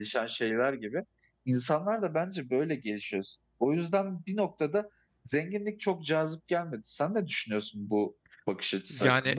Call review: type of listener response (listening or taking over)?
taking over